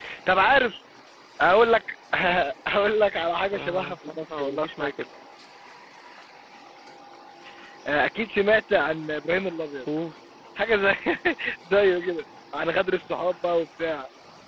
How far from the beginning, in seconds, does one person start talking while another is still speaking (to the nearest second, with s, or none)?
4 s